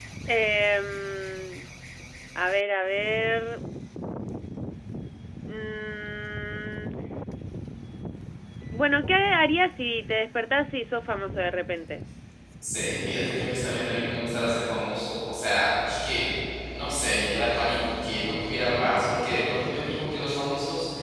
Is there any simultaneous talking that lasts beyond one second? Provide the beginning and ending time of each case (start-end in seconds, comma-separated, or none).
none